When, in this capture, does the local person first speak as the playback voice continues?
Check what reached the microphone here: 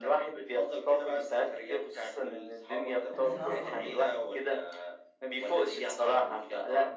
3.1 s

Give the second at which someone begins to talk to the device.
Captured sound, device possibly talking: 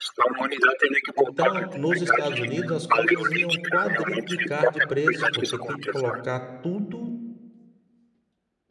1.2 s

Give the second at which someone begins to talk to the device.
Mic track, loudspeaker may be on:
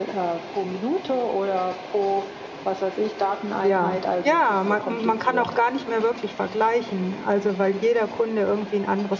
3.6 s

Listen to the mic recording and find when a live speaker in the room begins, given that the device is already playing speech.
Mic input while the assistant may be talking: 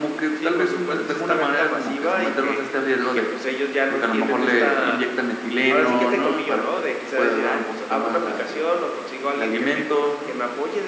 none

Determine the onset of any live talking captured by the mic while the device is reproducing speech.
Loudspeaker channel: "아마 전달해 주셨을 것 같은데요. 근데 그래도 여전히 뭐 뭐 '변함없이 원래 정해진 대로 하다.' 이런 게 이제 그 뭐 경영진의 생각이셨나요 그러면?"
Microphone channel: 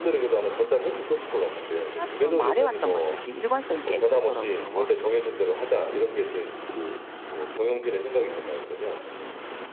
1.9 s

